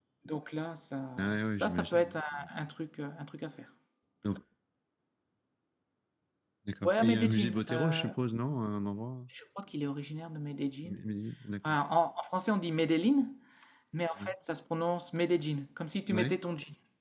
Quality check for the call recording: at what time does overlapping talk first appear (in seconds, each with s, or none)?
1.2 s